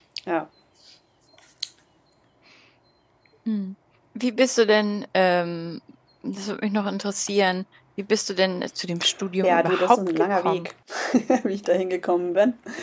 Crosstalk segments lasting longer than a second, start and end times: 9.4-10.7

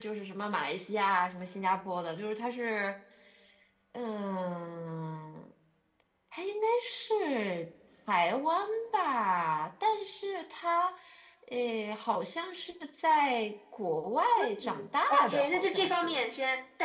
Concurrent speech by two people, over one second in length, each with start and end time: 14.6-16.2

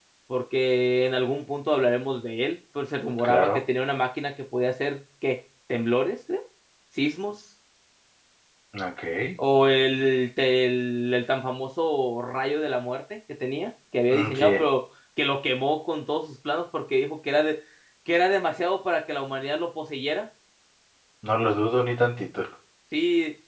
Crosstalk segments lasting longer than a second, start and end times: none

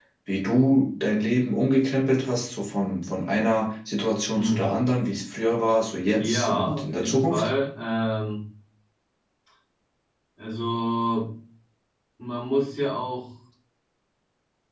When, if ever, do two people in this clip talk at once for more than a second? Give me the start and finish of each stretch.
6.2-7.5

